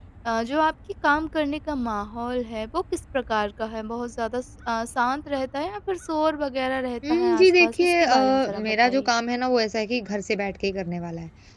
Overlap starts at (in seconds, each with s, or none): 7.0 s